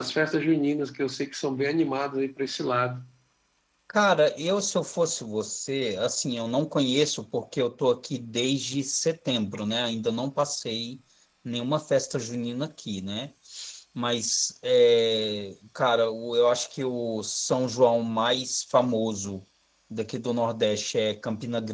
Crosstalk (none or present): none